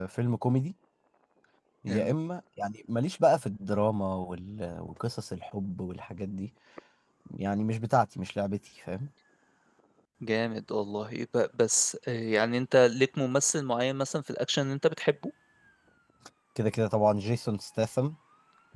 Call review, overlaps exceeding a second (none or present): none